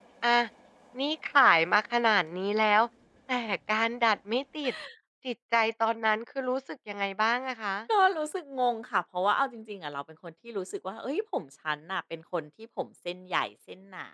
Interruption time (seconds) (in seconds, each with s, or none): none